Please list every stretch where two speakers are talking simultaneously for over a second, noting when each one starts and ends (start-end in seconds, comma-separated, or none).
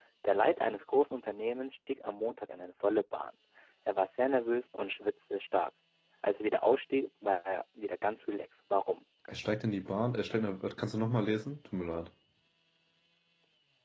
none